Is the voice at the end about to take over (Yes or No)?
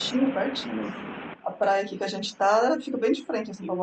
Yes